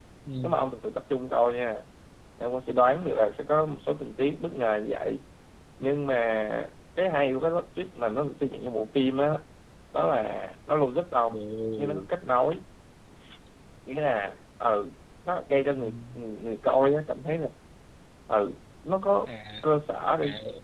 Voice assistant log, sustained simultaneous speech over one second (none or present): none